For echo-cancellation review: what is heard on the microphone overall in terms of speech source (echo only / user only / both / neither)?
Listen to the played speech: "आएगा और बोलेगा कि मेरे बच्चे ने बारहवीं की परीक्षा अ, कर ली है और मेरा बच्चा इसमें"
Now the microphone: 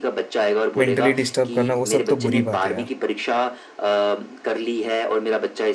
both